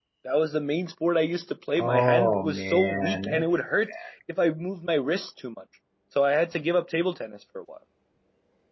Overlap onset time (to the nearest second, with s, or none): 2 s